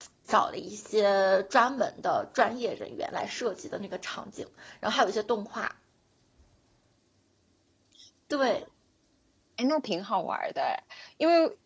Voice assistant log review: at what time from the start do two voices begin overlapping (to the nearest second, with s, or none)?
none